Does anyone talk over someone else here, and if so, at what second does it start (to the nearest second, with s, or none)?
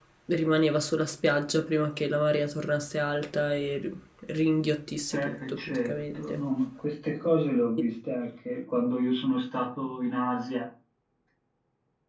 5 s